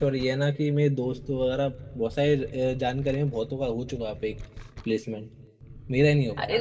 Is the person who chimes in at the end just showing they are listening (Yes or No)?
No